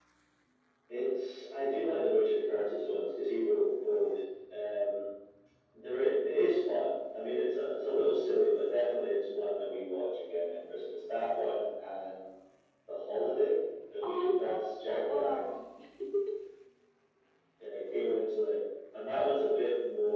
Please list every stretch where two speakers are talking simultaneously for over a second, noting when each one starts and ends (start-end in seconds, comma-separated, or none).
14.0-15.4